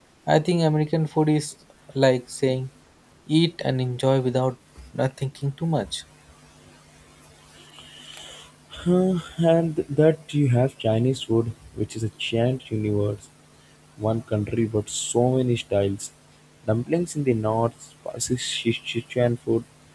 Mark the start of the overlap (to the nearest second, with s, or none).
none